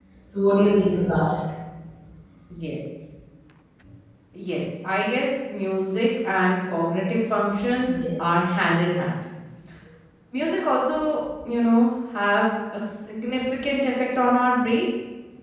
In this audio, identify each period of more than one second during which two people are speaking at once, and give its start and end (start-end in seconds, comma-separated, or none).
none